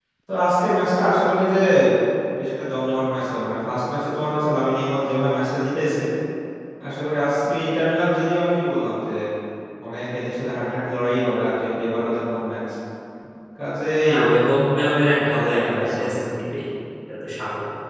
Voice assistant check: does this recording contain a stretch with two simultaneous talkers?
Yes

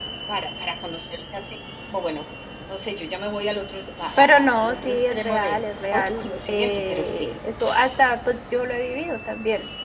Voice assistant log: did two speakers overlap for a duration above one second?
Yes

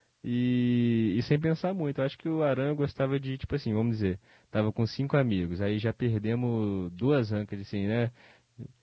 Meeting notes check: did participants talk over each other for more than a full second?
No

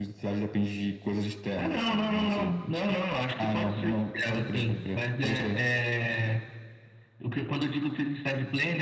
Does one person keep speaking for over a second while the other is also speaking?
Yes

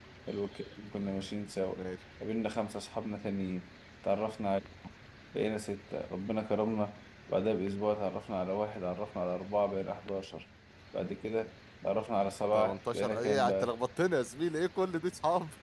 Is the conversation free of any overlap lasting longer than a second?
No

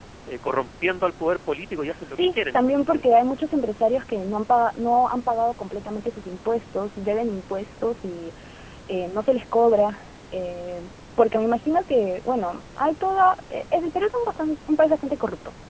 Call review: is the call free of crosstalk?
No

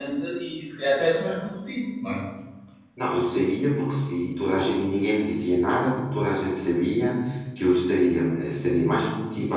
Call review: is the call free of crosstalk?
Yes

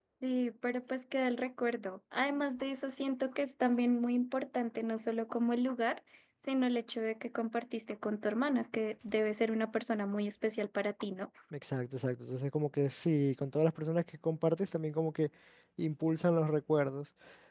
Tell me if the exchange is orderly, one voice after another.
Yes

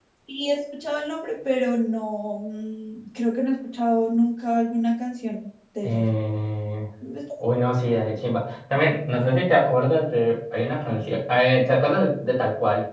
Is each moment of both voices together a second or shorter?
Yes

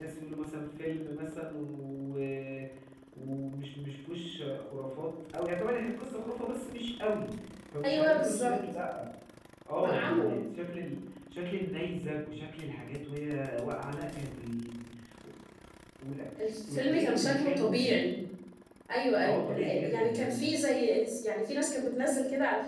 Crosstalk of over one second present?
Yes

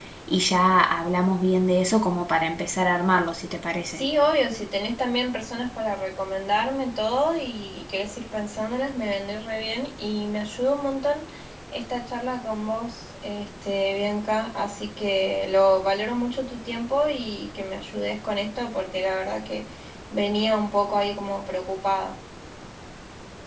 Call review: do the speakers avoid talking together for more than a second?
Yes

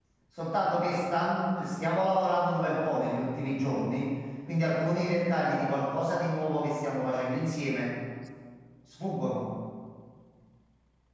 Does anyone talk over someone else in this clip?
No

